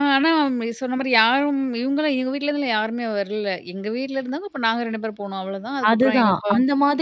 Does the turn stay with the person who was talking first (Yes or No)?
No